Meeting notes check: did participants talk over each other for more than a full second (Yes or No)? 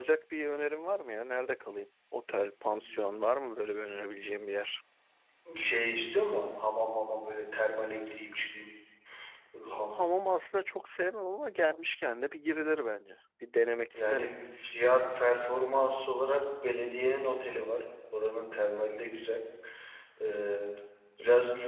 No